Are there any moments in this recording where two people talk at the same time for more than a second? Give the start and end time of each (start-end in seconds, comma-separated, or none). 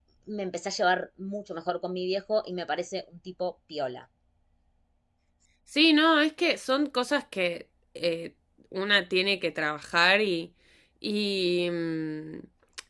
none